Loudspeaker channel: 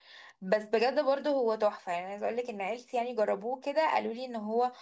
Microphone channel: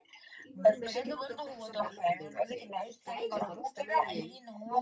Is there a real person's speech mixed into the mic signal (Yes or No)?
Yes